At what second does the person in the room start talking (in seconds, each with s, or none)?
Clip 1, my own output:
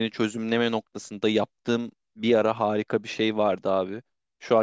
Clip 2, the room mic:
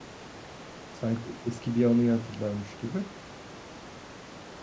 0.9 s